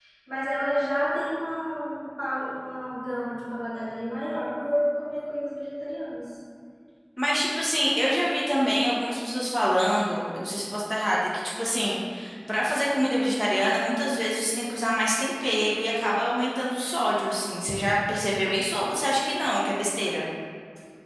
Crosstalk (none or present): none